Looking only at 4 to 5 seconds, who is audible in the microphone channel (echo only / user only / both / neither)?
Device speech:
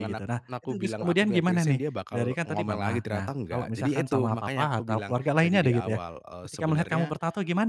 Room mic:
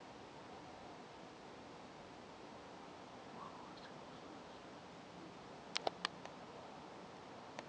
neither